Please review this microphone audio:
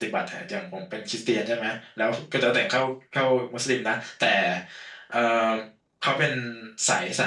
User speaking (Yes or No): Yes